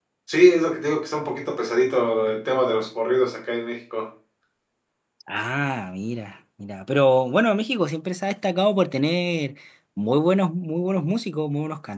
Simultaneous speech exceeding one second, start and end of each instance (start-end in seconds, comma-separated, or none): none